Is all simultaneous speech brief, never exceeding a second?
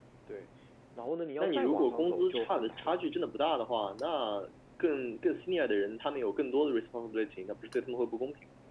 No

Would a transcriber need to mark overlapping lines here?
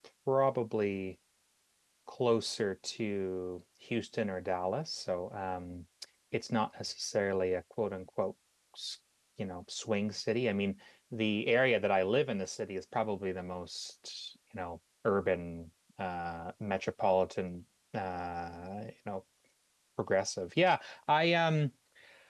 No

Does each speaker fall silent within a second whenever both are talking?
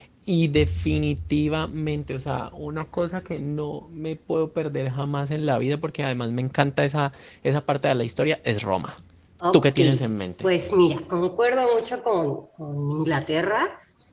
Yes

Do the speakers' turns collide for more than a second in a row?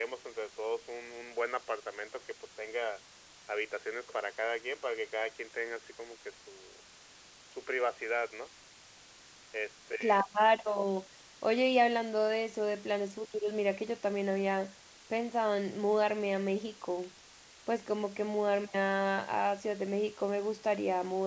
No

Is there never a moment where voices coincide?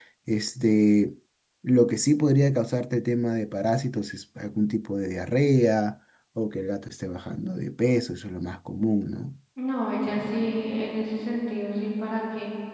Yes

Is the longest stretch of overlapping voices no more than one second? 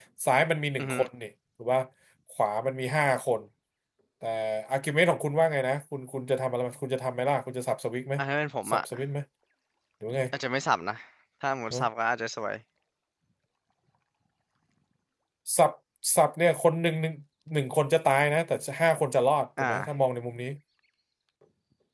Yes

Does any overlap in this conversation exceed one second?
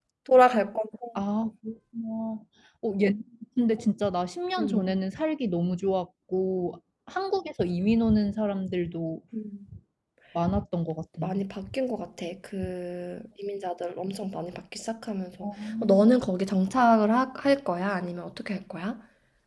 No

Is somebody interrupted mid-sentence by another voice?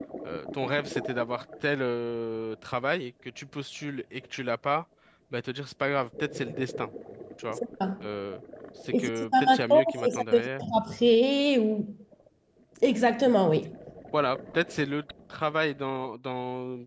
Yes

